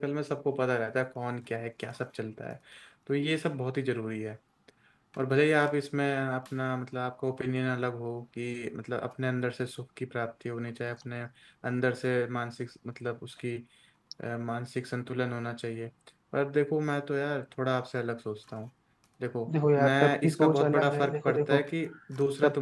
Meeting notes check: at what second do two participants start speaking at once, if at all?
19.8 s

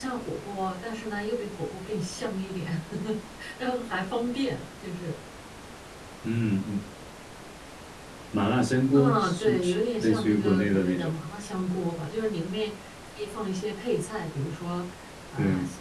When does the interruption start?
8.9 s

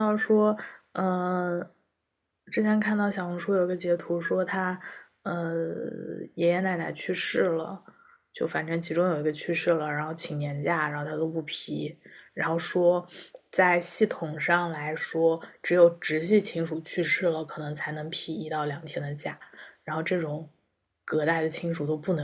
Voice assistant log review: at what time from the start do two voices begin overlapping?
none

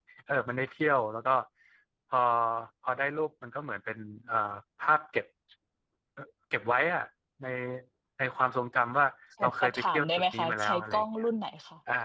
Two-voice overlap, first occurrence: 9.4 s

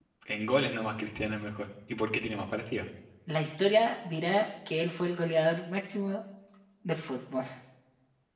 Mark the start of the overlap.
none

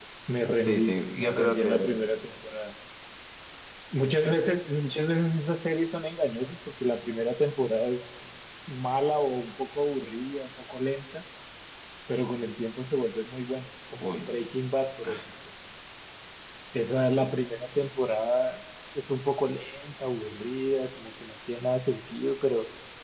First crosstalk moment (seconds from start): 0.6 s

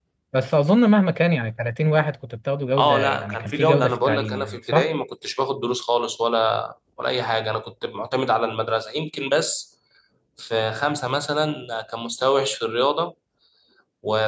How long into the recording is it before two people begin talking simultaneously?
2.8 s

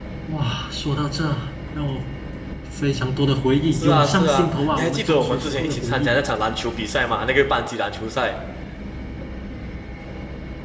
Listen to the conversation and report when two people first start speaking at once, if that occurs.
3.7 s

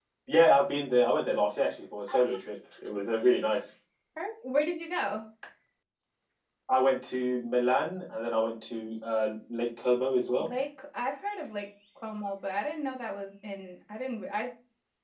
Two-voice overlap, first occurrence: none

